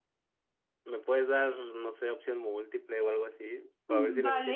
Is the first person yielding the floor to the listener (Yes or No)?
Yes